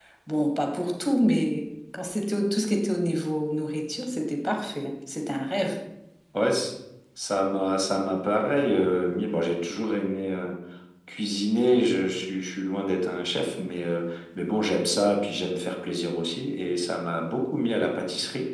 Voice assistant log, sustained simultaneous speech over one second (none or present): none